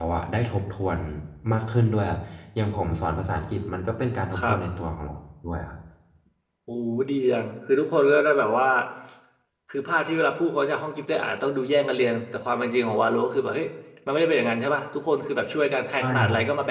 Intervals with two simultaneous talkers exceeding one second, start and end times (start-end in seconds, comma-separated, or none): none